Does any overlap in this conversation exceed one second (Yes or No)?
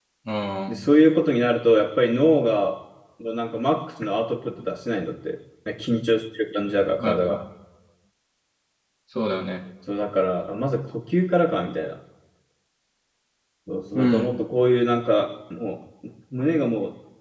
No